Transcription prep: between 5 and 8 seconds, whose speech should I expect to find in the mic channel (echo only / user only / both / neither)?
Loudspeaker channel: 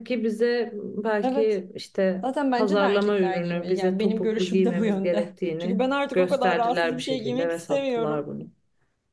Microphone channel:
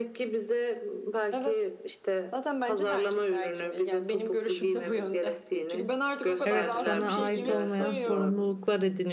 both